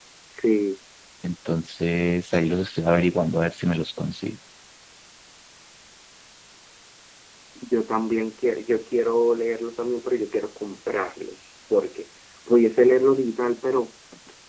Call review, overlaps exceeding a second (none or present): none